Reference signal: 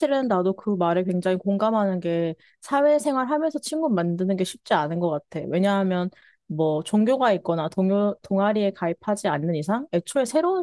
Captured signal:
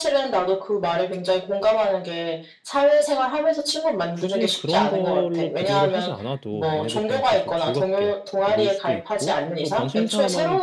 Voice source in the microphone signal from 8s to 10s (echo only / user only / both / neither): both